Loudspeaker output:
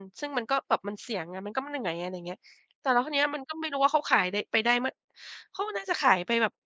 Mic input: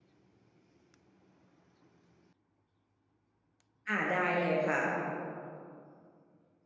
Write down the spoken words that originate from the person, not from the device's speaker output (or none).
อา ได้เลยค่ะ